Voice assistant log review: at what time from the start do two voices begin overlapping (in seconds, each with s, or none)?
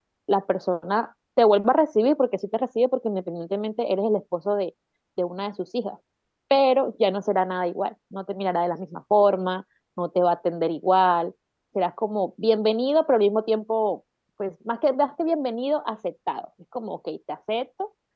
none